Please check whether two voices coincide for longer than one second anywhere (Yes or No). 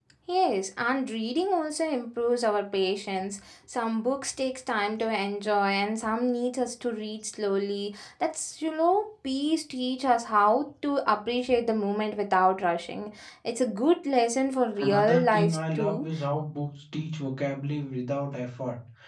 Yes